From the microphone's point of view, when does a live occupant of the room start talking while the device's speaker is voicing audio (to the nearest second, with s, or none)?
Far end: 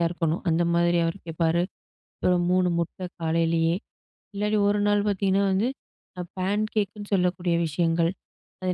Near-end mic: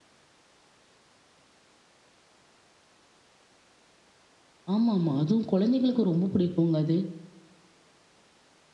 5 s